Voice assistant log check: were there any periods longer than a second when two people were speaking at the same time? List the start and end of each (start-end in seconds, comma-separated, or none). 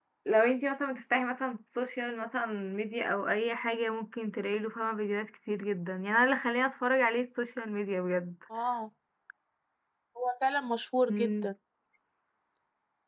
none